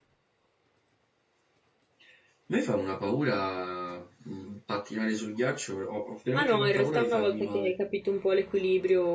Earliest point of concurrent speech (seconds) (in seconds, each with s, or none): 6.3 s